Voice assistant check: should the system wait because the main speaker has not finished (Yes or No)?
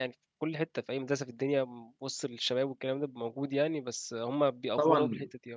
No